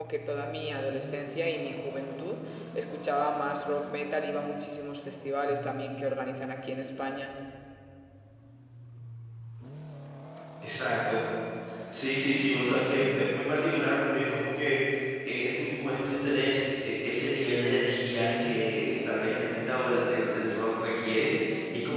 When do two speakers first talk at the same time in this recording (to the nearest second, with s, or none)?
none